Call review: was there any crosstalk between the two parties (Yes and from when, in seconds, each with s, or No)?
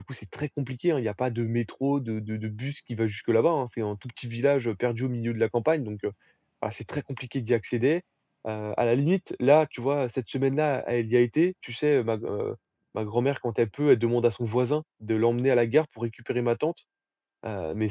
No